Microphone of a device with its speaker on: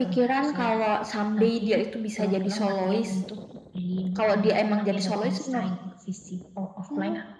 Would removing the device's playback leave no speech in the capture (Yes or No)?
Yes